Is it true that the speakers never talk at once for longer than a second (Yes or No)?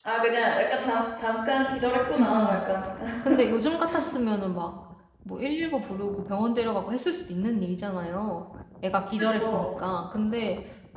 Yes